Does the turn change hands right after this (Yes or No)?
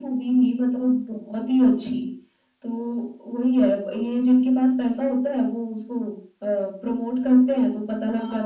Yes